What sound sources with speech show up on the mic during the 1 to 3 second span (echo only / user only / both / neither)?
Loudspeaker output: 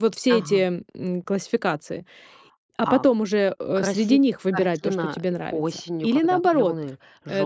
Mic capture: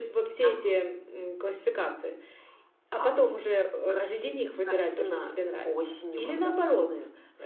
echo only